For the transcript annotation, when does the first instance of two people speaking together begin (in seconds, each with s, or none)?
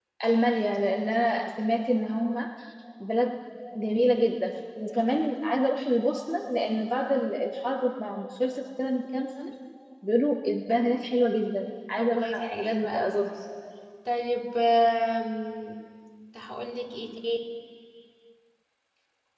12.0 s